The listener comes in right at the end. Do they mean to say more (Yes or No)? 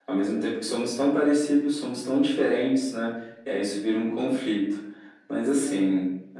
No